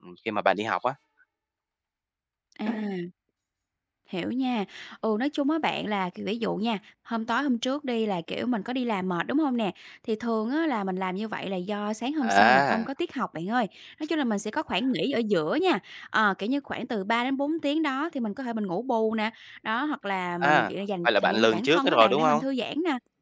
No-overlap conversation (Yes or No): No